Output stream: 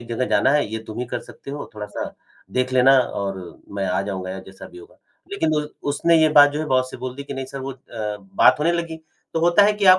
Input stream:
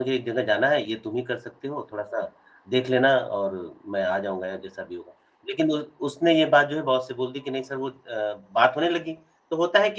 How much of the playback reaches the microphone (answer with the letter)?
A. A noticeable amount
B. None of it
A